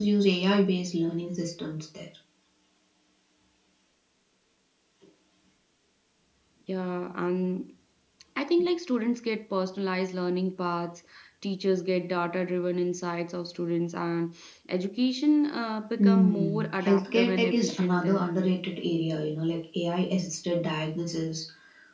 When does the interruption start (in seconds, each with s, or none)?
16.0 s